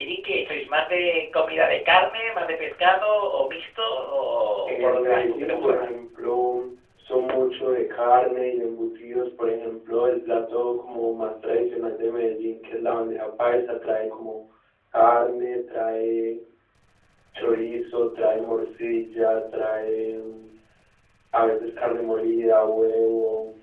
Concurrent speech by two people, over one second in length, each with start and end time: 4.7-5.9

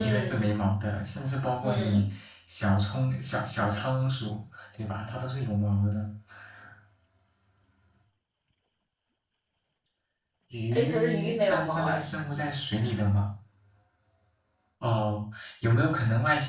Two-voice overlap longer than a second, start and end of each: 10.7-12.0

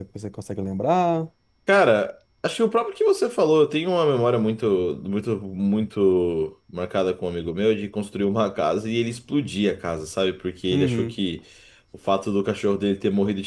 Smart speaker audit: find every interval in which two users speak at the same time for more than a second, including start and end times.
none

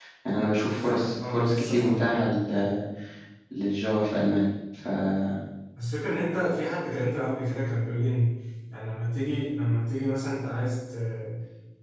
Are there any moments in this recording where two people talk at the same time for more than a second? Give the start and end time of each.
0.9-2.2

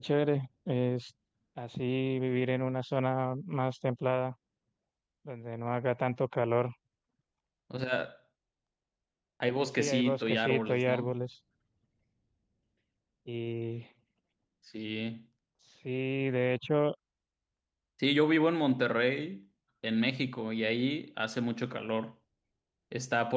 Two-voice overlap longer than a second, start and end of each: 9.8-11.2

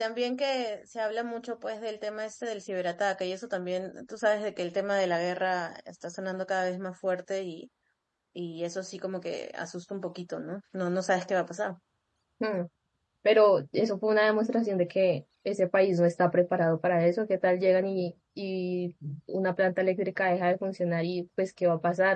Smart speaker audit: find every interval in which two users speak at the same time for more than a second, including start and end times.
none

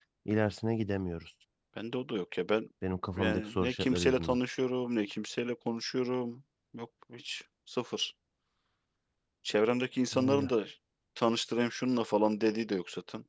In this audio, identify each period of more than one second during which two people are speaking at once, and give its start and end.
3.2-4.4

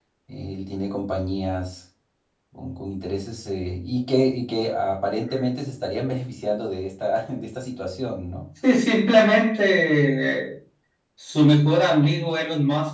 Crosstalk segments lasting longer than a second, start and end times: none

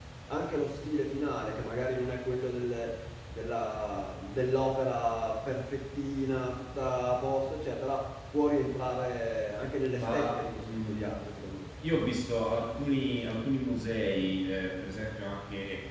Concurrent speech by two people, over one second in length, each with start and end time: 9.9-11.2

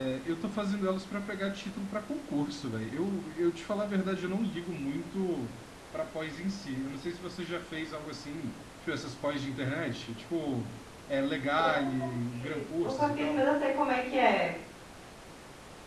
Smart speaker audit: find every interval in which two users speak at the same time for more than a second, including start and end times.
11.6-13.4

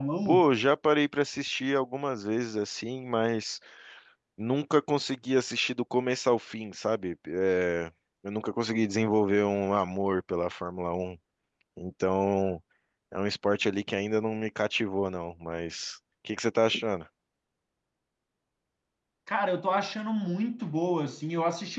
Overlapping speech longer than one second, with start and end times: none

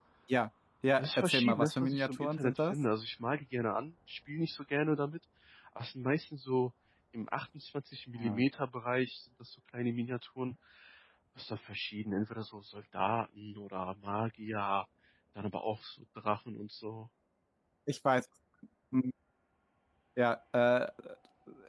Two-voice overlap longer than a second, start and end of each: 1.0-2.8

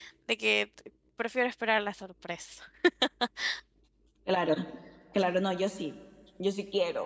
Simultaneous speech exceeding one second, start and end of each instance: none

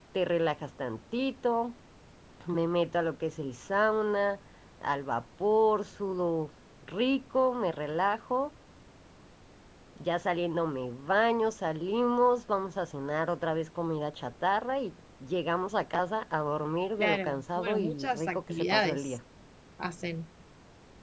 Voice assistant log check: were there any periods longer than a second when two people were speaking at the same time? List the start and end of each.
17.0-19.2

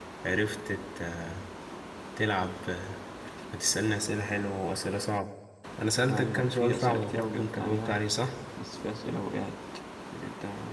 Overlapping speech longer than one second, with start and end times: 6.1-8.0

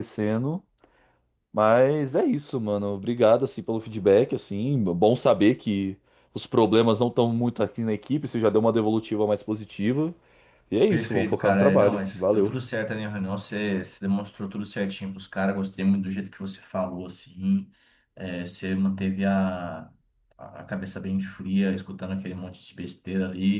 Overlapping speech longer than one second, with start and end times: 10.9-12.5

